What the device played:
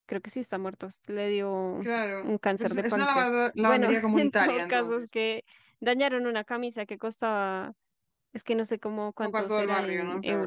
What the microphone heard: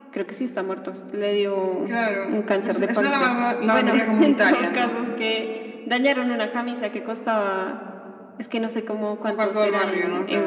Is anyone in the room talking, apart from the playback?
No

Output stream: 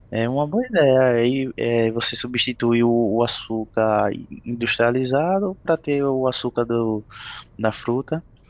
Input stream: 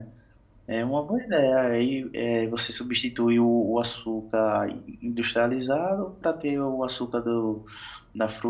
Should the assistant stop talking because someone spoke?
No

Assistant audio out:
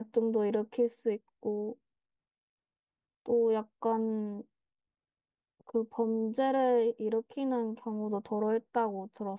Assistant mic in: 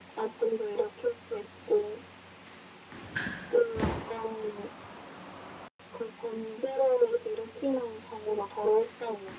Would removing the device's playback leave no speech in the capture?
Yes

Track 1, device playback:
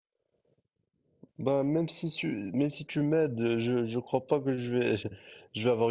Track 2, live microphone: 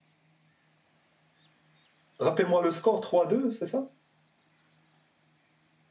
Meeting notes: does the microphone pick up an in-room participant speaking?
Yes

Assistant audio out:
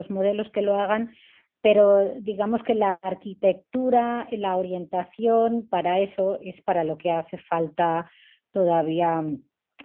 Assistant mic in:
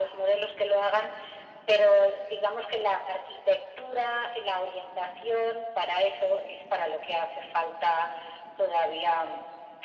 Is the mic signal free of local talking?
Yes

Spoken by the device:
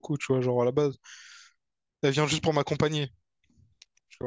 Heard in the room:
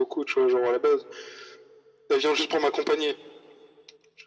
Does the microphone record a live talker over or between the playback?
No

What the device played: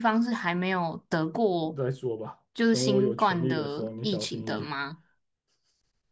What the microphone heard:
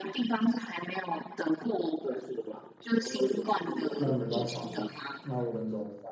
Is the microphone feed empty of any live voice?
No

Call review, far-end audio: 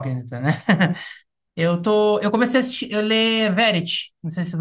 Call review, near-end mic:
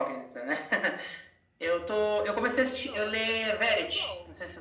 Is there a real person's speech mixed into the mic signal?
Yes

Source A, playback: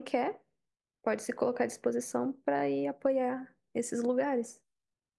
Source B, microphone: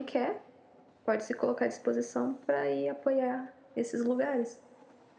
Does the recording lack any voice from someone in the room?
Yes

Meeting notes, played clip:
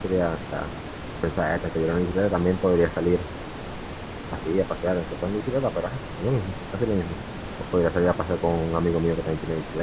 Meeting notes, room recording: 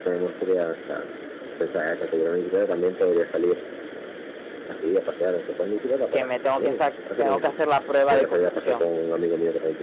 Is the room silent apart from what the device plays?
No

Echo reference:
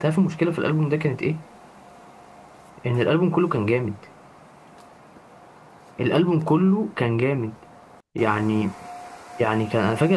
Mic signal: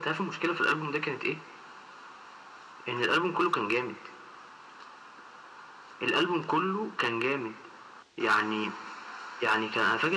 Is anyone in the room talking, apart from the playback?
No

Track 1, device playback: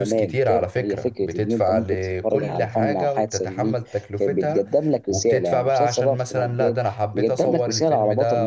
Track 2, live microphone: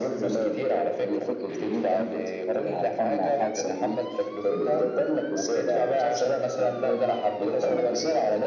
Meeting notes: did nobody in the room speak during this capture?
Yes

